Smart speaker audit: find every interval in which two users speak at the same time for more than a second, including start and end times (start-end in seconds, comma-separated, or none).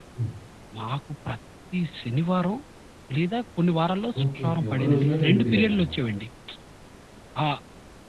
4.2-6.0